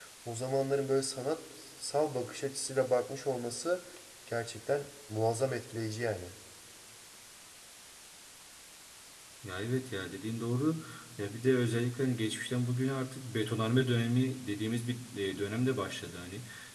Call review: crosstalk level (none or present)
none